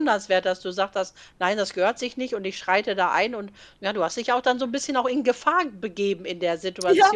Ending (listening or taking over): taking over